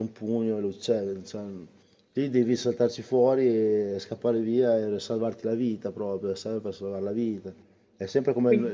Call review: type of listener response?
listening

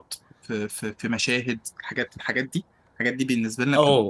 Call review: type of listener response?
taking over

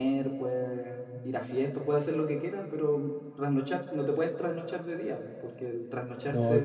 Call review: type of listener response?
listening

